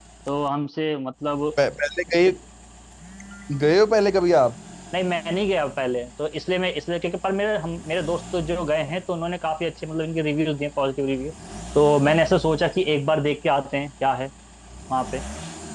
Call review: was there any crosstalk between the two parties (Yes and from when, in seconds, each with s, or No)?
No